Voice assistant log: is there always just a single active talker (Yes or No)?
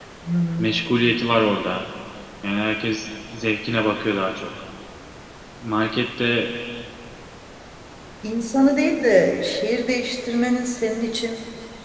Yes